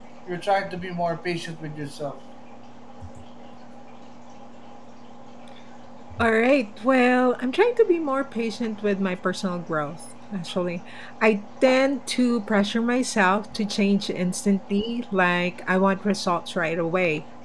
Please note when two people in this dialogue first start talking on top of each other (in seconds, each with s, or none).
none